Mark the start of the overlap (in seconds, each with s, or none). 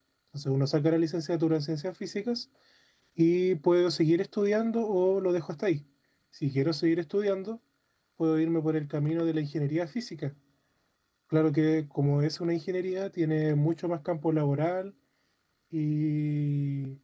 none